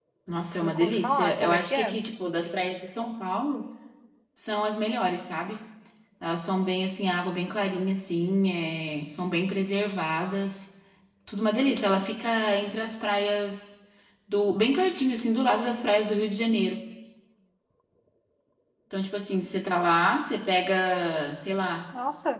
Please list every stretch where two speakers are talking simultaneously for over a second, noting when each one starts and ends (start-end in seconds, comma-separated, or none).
0.6-1.9